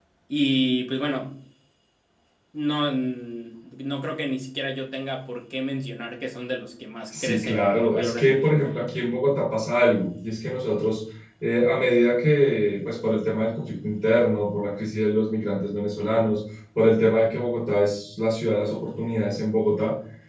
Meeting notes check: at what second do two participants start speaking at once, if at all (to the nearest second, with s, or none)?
7 s